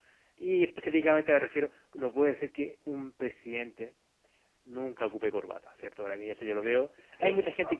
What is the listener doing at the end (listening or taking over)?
listening